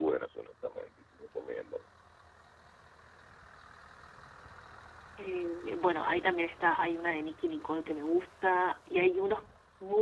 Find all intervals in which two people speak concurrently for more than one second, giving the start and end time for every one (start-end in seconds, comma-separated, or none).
none